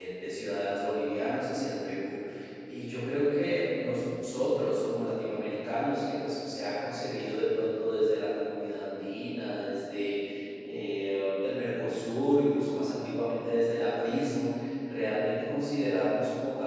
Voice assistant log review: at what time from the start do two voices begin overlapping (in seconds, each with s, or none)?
none